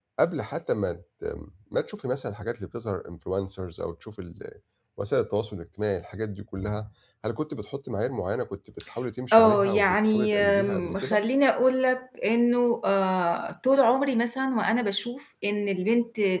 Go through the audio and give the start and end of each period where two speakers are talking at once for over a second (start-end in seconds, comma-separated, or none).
9.3-11.2